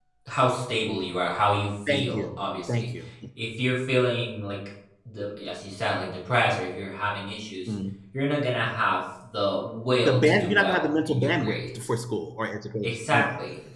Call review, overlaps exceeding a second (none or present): present